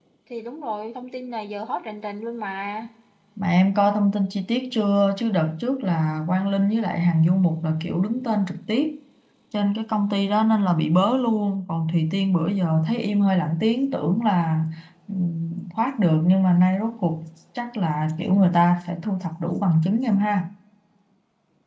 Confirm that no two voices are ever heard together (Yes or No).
Yes